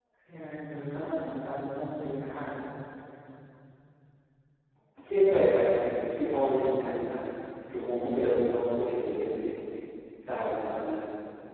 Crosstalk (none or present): none